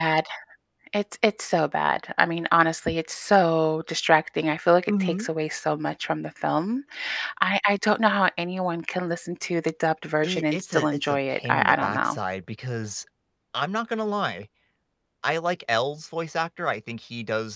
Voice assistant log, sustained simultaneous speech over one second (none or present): present